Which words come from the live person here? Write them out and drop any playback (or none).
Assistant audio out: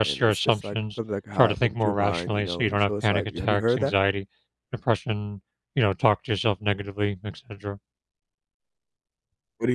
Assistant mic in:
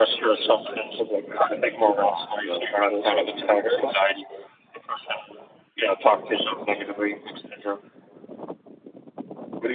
none